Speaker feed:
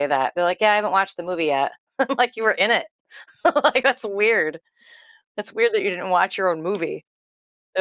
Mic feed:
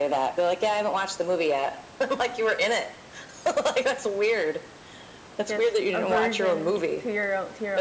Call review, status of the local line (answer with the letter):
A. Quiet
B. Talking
B